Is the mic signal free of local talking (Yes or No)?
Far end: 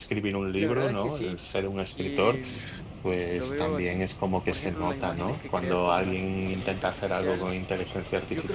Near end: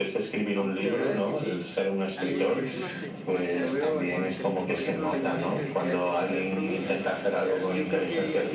No